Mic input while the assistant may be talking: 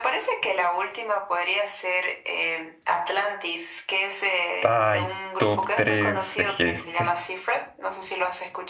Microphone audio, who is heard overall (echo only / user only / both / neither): both